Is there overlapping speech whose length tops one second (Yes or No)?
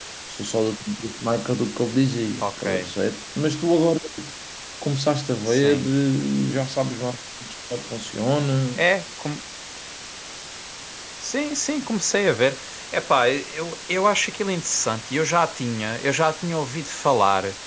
No